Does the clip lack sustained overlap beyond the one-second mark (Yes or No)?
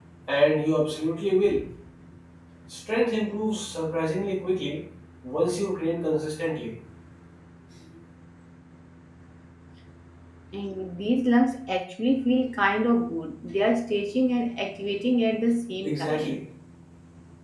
Yes